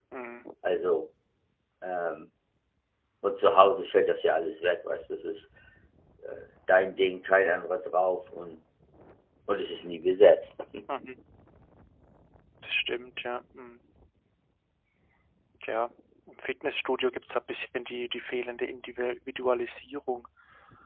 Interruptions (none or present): none